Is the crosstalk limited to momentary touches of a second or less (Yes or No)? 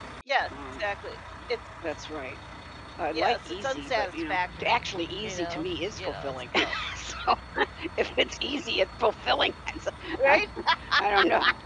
No